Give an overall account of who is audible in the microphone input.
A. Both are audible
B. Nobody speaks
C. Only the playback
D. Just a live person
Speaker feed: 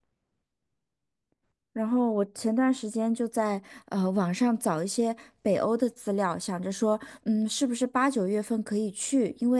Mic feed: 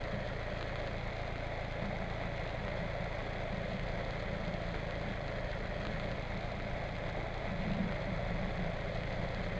B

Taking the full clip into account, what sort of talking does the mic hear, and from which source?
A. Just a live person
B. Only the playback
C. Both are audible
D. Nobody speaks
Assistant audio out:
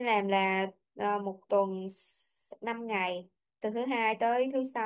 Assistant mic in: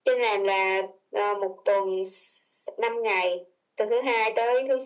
B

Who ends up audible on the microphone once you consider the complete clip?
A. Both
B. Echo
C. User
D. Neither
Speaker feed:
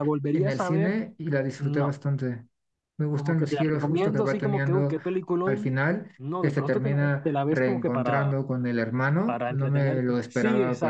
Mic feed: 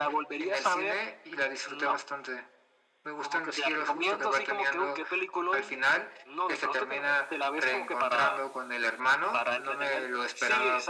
B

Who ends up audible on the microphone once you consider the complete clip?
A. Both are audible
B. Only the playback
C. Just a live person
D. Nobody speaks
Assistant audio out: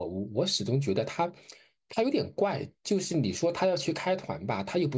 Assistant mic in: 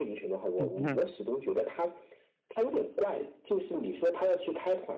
A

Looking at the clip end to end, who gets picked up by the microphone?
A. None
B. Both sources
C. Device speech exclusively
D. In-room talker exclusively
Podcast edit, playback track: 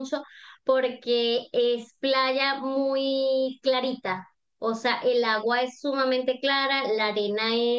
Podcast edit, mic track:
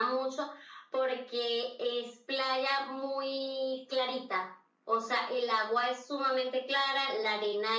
C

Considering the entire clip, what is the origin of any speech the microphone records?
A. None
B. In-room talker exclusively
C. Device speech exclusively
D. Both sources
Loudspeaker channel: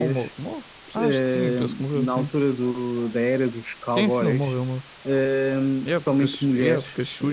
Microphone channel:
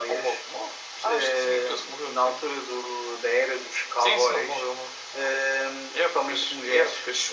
C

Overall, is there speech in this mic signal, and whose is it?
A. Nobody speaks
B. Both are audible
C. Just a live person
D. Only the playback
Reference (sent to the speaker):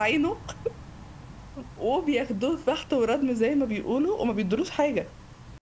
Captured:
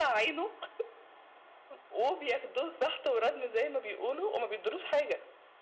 D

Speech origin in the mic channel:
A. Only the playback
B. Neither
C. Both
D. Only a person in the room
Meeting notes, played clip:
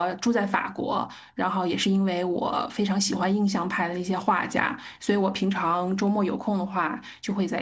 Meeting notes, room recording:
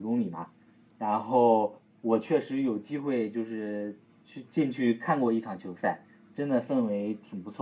D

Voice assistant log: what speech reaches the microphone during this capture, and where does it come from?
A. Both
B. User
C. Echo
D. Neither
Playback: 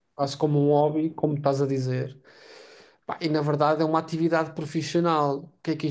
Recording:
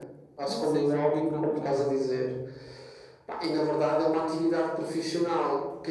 A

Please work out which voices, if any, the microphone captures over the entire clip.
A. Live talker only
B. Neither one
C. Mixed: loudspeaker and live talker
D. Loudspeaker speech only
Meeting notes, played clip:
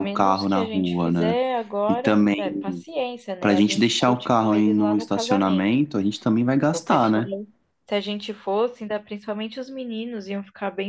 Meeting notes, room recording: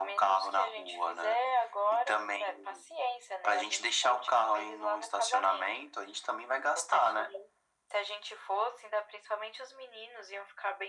D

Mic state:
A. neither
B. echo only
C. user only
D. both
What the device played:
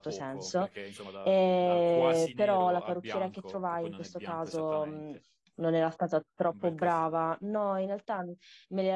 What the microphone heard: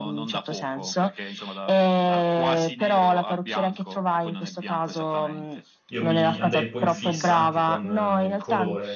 D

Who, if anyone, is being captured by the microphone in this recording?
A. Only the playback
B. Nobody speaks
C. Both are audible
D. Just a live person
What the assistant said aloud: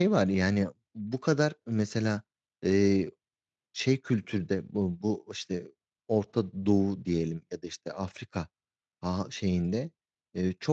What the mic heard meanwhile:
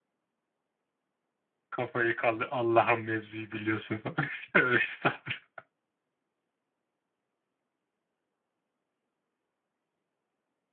D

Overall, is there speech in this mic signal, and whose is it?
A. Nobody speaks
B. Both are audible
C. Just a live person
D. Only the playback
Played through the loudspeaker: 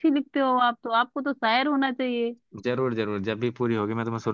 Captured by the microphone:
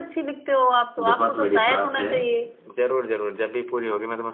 B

